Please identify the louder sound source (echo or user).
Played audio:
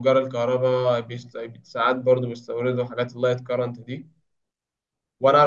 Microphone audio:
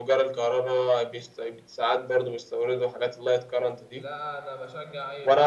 echo